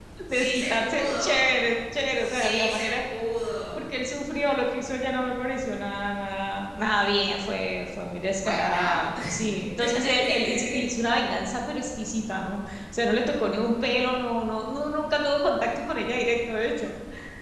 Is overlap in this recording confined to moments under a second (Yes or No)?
No